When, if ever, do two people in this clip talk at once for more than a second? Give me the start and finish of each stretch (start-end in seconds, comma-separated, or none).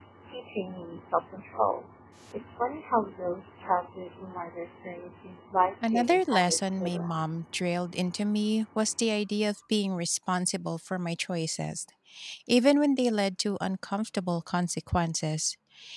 5.8-7.2